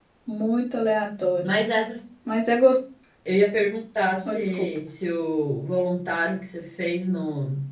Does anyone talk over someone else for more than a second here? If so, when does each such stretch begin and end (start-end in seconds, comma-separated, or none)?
none